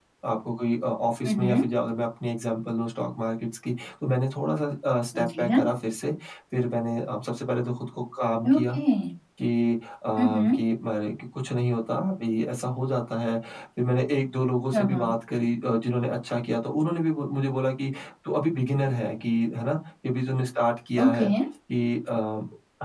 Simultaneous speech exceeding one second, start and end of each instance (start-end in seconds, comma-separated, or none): none